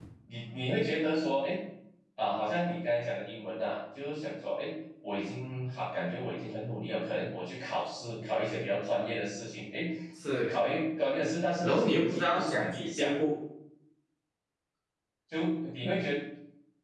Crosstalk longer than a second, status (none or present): present